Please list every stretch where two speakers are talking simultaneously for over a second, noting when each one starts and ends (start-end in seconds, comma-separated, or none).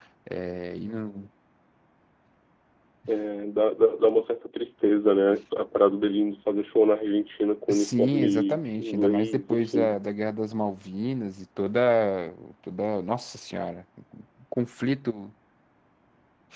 7.7-10.0